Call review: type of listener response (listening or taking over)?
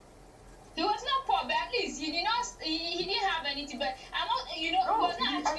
taking over